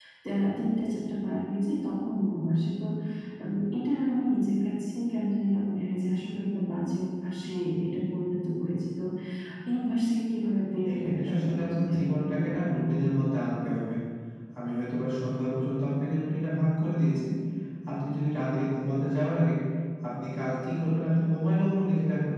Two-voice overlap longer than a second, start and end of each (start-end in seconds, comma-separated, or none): 10.9-12.8